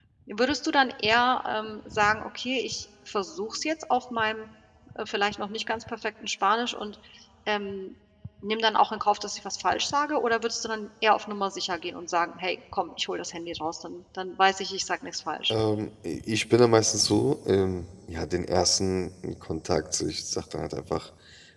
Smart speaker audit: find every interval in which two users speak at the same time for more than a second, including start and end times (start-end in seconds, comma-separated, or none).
none